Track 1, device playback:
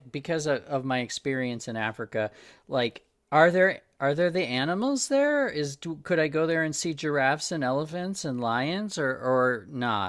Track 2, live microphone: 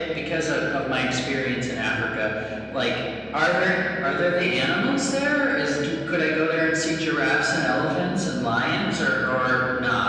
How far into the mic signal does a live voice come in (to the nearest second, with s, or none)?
none